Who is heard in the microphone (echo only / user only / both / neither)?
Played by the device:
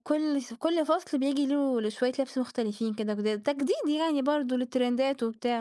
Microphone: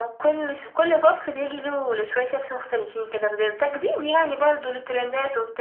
echo only